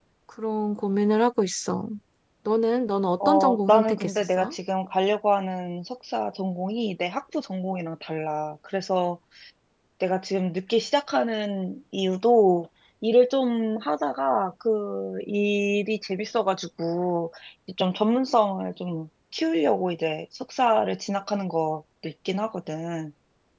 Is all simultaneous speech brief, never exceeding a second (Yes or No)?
No